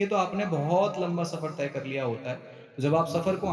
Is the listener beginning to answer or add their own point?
No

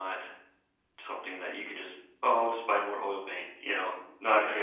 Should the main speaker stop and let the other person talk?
Yes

